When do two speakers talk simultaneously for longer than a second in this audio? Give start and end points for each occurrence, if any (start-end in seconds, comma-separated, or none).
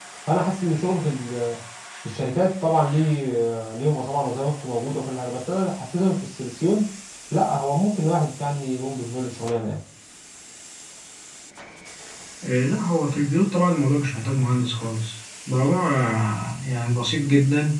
none